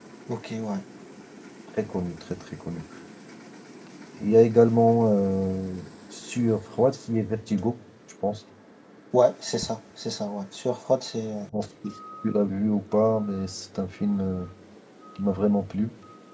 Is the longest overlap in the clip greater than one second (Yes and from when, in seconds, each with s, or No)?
No